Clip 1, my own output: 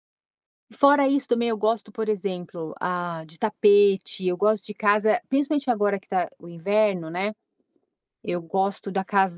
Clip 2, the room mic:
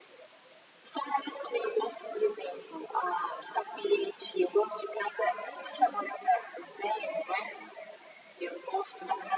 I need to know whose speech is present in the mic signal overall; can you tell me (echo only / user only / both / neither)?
echo only